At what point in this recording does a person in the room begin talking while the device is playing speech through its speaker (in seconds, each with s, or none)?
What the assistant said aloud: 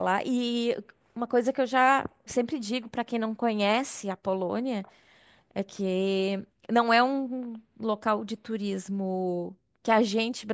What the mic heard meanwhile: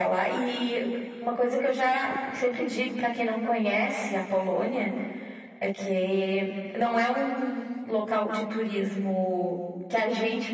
none